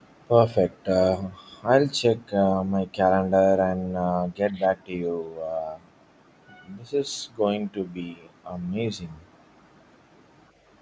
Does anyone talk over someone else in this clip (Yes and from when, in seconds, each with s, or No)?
No